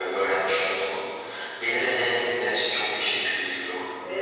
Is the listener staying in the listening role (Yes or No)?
No